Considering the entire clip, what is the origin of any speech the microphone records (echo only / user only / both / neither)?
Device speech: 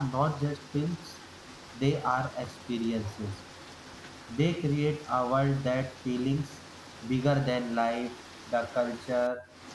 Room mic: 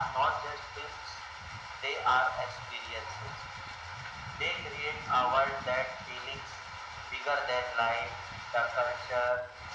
echo only